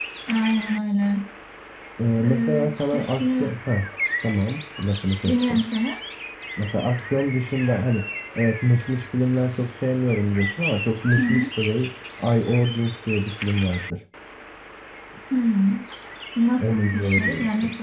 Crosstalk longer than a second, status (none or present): present